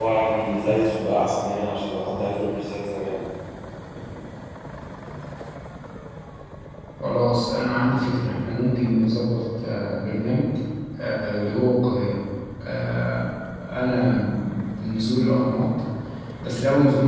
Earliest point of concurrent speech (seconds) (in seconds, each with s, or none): none